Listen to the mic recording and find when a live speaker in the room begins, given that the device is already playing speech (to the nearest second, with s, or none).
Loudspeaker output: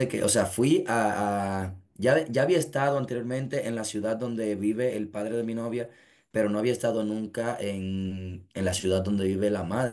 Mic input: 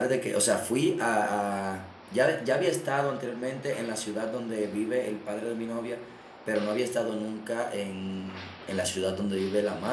none